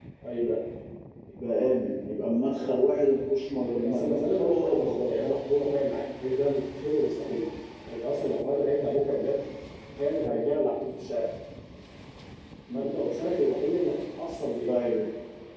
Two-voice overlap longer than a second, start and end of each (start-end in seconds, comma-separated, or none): 3.8-5.2